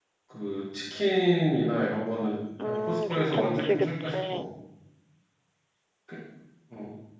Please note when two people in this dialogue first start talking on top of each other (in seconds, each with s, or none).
2.6 s